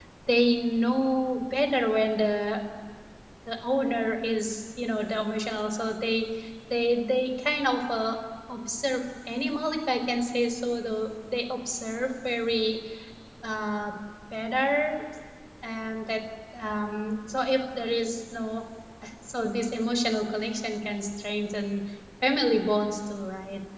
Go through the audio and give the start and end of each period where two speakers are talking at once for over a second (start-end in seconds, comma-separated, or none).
none